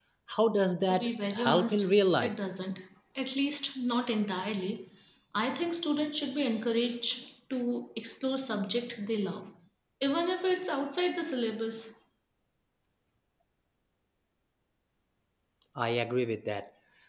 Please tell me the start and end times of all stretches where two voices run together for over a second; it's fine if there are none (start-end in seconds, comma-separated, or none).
0.9-2.3